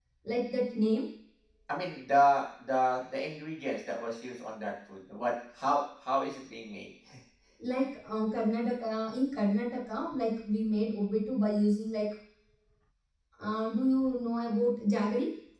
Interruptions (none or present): none